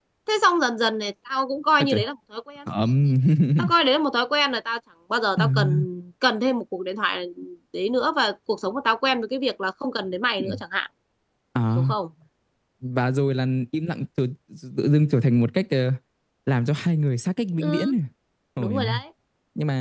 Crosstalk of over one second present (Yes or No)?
No